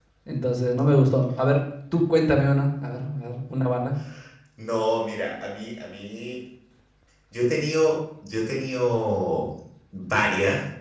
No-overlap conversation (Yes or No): Yes